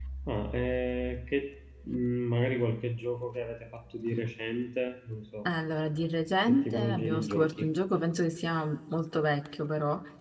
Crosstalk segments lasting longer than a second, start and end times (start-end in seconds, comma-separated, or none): 6.4-7.7